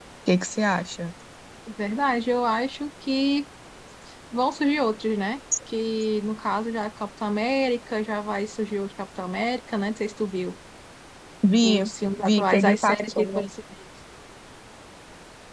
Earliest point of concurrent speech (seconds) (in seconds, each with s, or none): 11.6 s